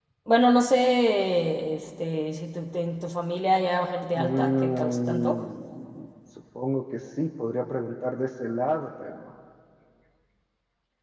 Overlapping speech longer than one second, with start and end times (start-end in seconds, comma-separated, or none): 4.2-5.4